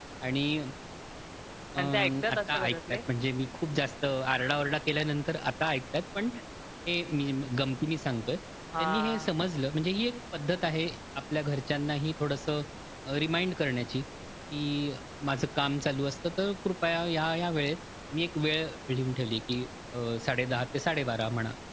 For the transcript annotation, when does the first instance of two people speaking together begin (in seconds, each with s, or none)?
1.8 s